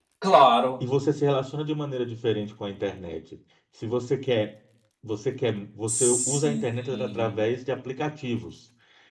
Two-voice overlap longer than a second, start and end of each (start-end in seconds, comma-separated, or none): 5.9-7.4